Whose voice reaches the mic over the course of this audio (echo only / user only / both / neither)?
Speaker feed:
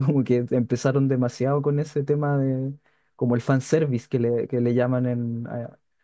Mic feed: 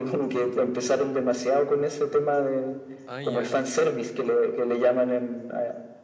both